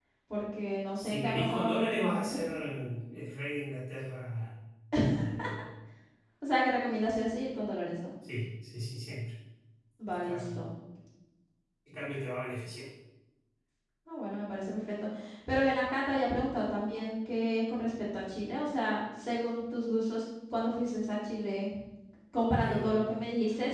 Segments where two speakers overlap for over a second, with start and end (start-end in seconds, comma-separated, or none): 1.0-2.4